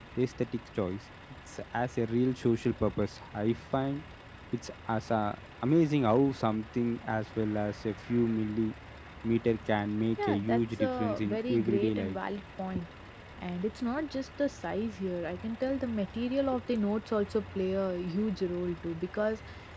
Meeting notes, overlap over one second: present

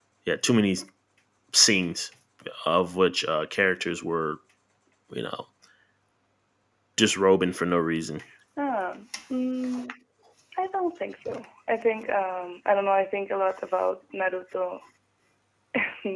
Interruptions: none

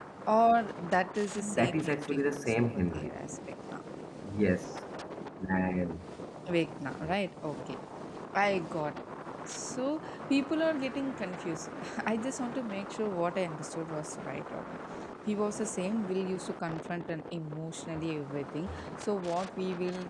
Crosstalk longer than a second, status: present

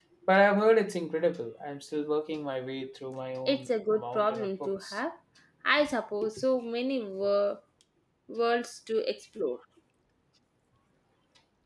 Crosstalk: present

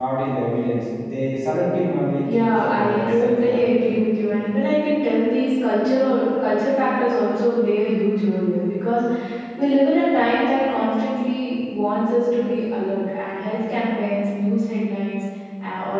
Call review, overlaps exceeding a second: present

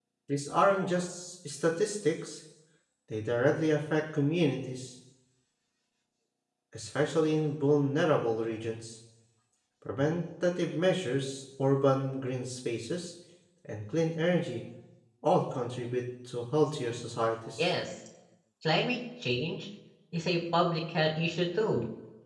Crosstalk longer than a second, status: none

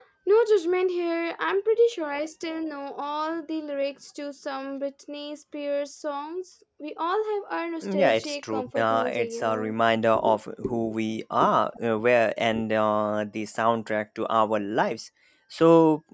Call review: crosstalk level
present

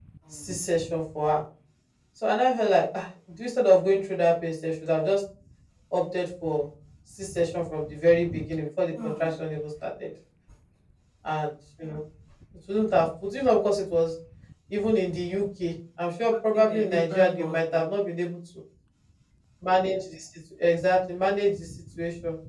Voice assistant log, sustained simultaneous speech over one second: present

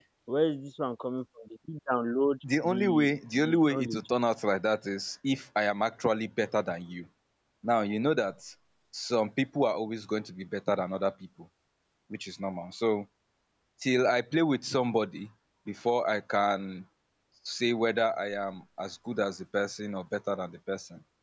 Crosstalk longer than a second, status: present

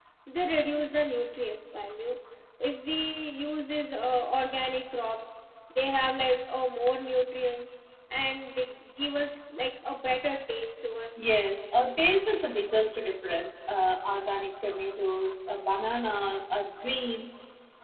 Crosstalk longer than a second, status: none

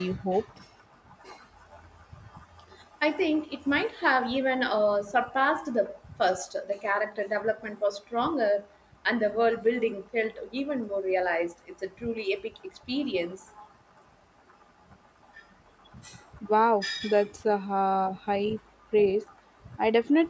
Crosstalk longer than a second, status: none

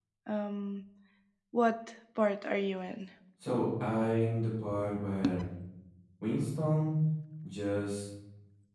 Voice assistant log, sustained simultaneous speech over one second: none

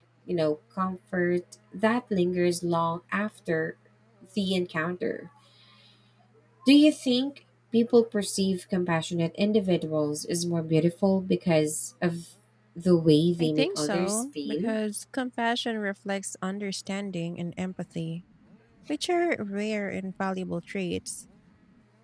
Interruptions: present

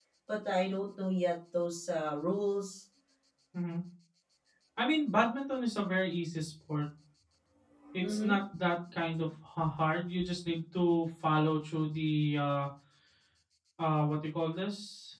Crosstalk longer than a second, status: none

